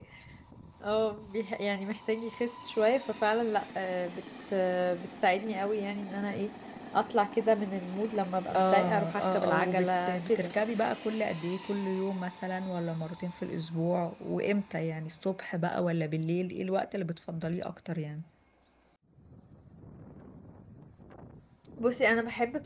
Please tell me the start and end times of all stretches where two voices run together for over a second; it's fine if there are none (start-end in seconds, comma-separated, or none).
8.6-10.5